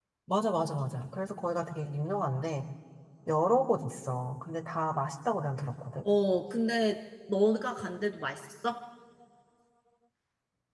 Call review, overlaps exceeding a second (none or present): none